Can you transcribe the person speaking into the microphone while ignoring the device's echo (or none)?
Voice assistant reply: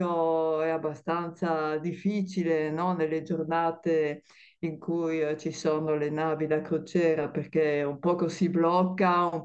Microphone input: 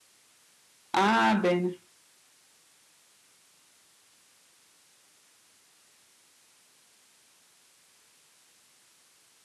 Ah, bene.